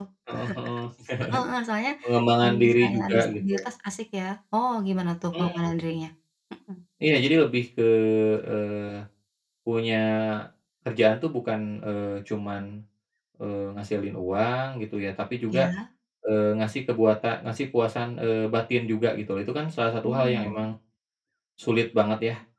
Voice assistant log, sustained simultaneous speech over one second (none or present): present